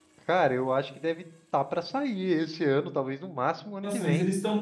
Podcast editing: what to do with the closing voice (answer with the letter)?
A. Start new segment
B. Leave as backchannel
A